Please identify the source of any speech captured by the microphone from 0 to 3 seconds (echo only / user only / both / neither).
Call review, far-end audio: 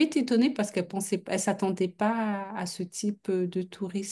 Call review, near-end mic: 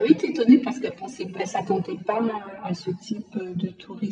echo only